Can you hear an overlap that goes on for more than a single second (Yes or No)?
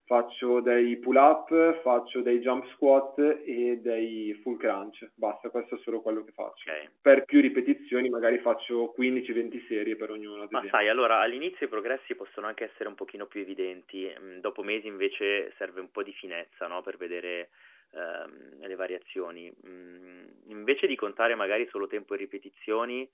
No